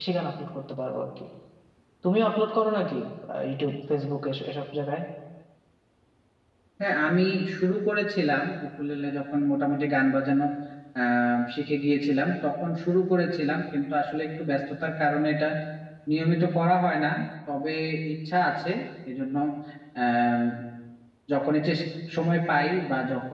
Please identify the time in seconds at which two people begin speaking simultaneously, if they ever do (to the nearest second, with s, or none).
none